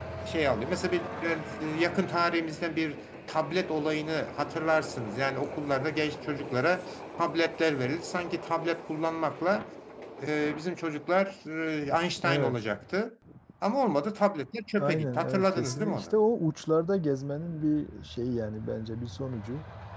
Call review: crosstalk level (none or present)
present